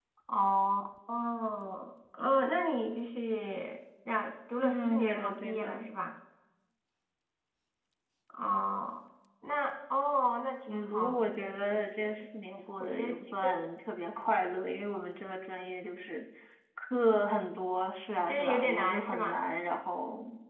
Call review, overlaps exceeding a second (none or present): present